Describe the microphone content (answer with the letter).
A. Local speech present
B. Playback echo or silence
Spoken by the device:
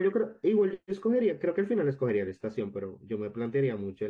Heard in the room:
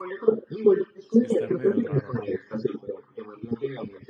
A